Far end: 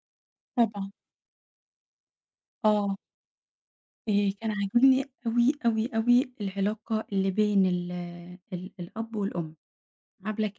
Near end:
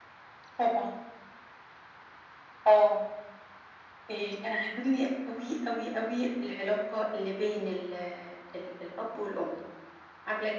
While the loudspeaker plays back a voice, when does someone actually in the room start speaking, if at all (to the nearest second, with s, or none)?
none